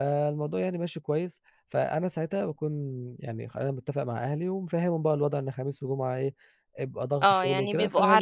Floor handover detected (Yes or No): Yes